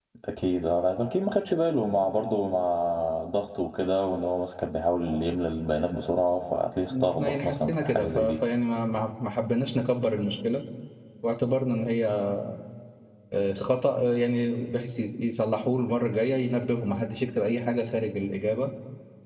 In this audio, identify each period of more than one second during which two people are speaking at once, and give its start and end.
6.9-8.4

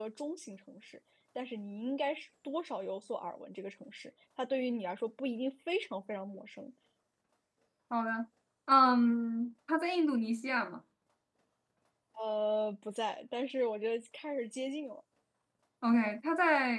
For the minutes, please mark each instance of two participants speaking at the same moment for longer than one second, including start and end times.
none

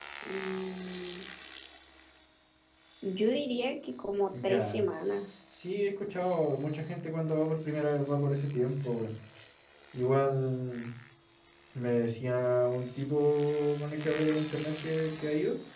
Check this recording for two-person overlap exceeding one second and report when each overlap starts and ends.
none

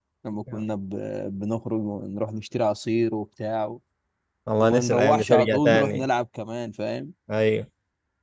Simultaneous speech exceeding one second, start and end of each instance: 4.6-6.1

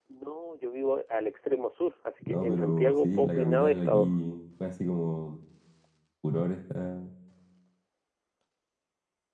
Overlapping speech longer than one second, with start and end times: 2.3-4.1

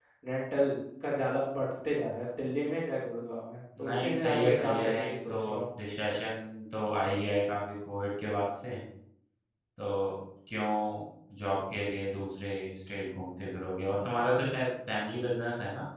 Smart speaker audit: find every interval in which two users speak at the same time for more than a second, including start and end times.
3.8-5.3

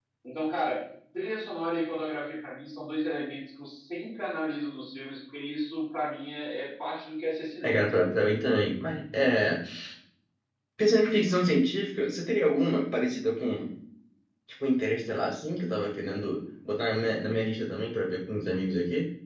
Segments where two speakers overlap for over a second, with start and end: none

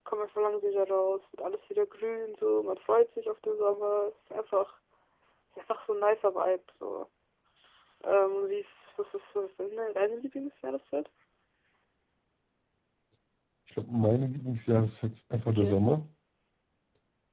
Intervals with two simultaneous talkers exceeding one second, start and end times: none

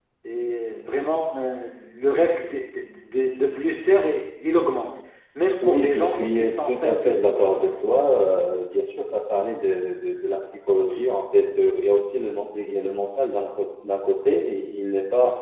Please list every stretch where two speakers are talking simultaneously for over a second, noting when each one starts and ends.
5.6-7.7

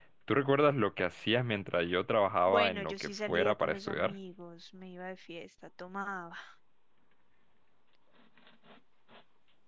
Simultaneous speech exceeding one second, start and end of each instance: 2.5-4.1

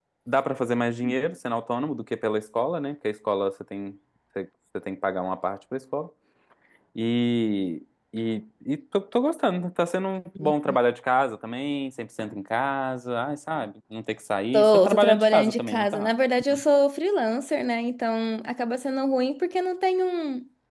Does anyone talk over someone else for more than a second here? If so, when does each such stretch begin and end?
14.5-16.1

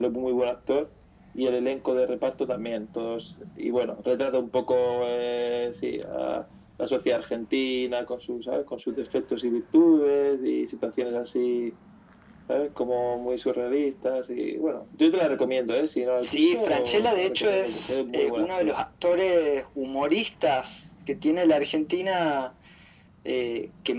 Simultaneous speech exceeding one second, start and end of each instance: 16.2-18.7

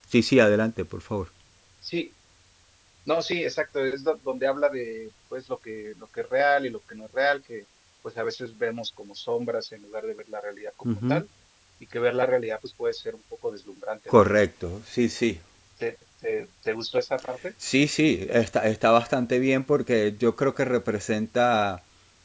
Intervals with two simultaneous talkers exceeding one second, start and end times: none

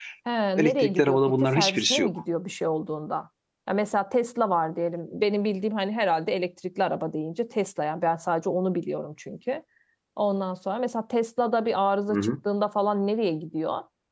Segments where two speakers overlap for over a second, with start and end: 0.6-2.1

